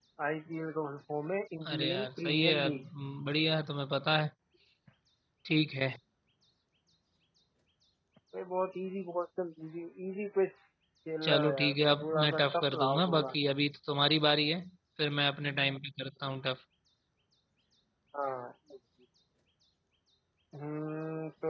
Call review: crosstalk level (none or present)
present